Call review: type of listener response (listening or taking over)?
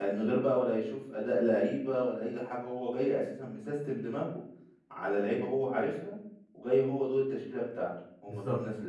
taking over